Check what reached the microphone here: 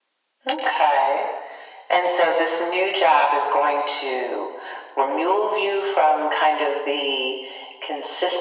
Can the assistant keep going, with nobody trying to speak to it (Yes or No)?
Yes